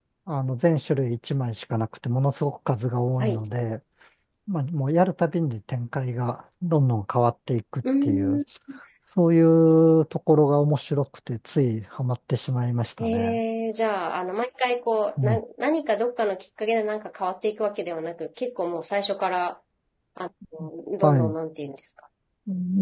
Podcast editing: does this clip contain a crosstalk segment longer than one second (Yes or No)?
No